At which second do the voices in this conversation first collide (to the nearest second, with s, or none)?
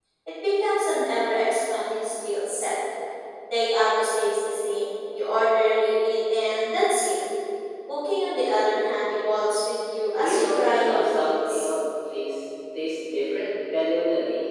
10 s